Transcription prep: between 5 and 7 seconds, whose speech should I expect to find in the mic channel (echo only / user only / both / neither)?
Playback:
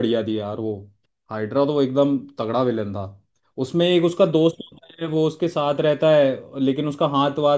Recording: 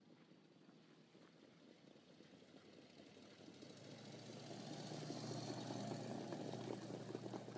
neither